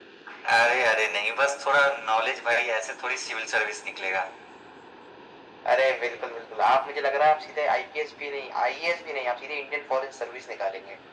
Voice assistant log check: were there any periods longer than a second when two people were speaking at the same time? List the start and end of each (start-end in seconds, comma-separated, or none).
none